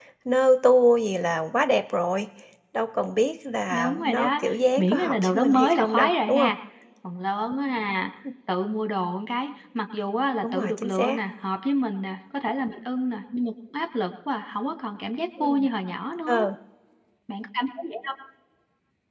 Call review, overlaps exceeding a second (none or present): present